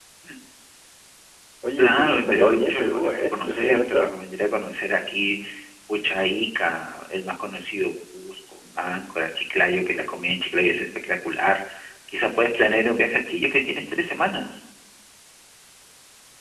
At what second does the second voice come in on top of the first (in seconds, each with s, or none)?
1.8 s